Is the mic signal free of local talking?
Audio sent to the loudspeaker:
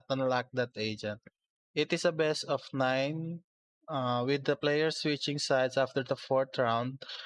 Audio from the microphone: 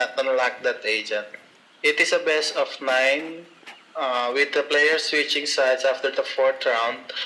Yes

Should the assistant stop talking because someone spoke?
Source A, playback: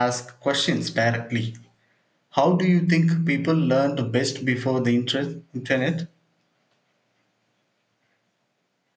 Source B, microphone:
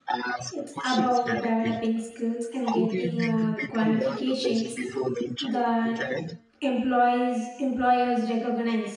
Yes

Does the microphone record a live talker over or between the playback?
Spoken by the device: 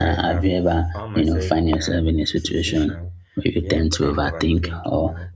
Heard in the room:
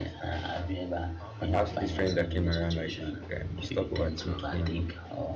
Yes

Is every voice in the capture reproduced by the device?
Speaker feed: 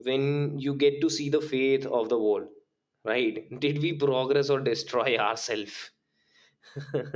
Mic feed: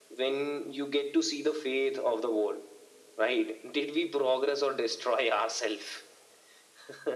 Yes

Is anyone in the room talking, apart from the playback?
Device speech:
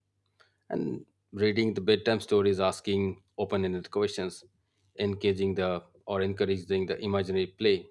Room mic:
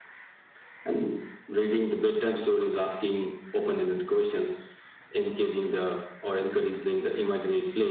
No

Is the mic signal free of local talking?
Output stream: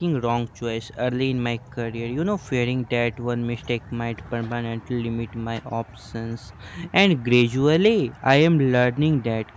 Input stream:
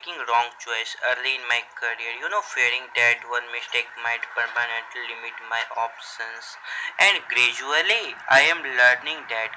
Yes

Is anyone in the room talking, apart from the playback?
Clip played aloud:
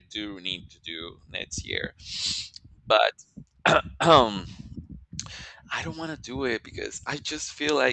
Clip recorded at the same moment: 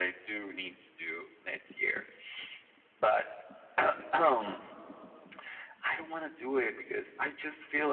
No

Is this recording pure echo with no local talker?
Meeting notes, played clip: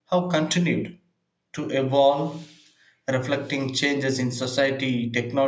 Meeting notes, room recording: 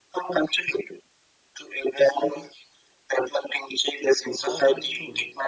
No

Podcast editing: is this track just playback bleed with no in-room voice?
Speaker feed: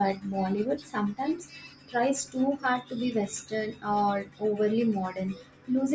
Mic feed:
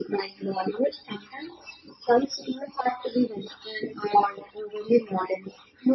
Yes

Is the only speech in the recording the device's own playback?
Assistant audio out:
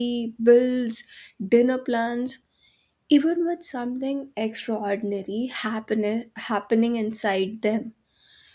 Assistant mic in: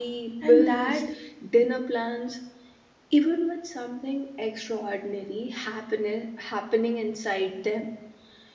No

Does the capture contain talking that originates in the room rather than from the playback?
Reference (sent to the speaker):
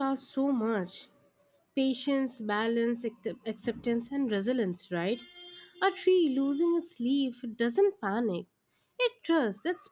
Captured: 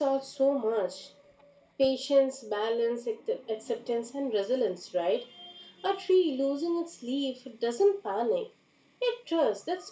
No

